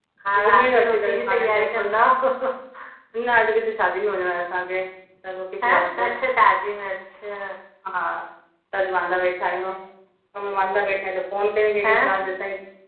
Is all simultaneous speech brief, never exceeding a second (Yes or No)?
No